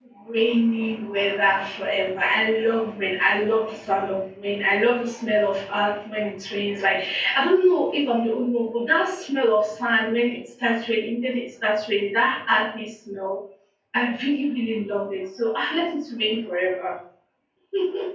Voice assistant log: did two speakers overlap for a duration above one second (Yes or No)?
No